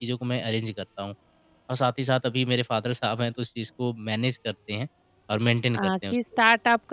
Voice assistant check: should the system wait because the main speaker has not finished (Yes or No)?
No